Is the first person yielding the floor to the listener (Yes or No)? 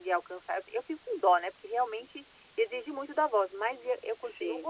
No